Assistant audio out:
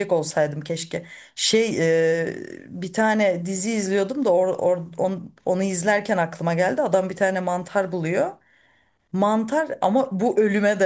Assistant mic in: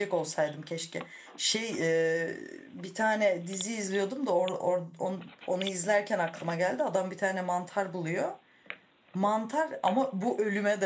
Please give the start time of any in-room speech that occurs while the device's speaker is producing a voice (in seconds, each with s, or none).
none